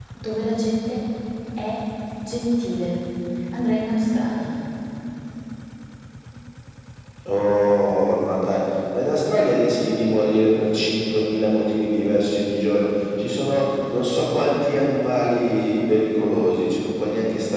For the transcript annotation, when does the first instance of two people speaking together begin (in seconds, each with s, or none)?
none